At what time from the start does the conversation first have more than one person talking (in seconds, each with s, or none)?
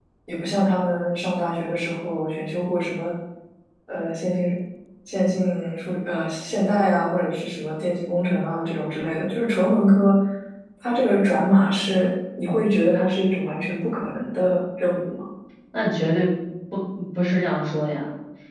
none